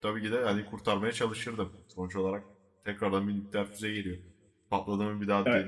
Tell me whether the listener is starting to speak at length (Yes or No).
No